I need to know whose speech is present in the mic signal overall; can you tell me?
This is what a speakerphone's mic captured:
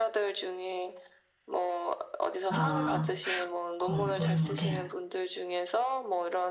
both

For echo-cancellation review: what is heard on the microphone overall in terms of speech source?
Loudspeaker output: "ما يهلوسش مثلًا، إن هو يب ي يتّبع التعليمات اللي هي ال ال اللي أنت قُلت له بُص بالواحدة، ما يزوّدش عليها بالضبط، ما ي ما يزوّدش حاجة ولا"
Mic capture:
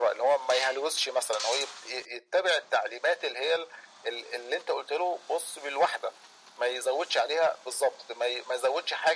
echo only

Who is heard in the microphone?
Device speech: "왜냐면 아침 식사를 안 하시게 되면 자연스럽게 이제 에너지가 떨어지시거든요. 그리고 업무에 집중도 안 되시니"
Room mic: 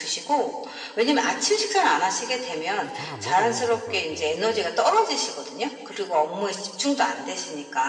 both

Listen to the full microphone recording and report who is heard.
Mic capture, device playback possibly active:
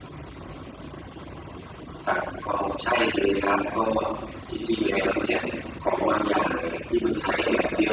echo only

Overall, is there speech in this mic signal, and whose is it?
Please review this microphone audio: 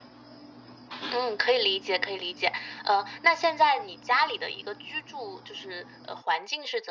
echo only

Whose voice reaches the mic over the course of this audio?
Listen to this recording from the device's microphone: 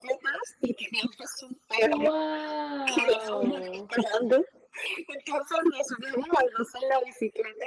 both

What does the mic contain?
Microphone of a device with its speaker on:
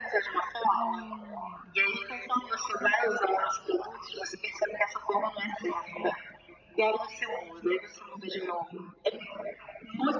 both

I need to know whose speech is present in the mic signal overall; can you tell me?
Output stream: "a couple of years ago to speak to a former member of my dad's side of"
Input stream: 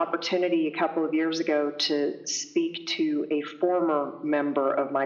echo only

